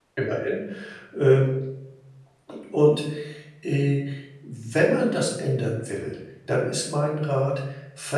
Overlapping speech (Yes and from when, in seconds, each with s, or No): No